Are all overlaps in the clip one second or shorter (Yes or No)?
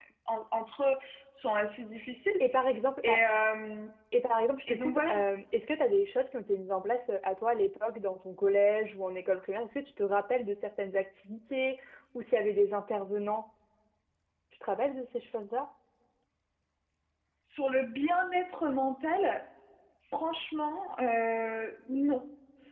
Yes